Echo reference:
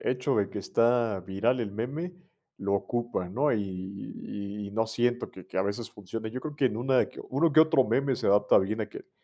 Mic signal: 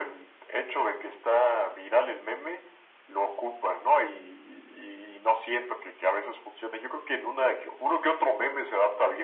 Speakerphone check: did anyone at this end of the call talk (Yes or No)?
No